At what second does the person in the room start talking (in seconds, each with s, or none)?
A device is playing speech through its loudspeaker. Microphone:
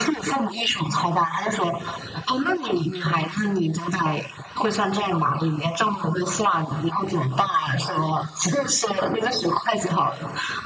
none